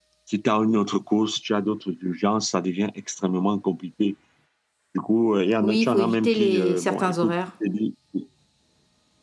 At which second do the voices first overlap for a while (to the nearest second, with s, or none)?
6 s